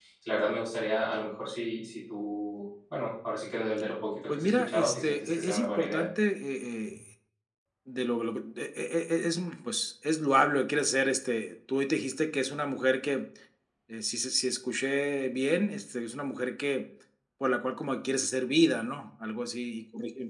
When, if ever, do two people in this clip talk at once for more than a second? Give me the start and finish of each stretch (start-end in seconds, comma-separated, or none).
4.3-6.1